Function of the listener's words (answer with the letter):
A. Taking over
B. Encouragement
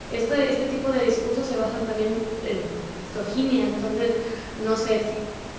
B